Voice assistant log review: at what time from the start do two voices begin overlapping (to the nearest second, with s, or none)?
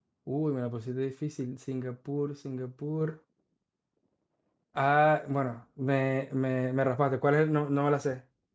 none